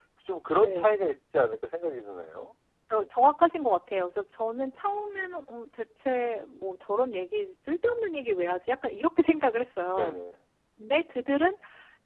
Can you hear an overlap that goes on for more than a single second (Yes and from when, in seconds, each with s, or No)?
No